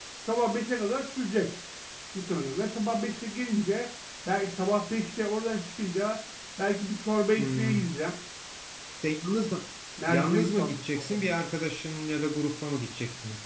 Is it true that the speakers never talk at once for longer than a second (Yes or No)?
No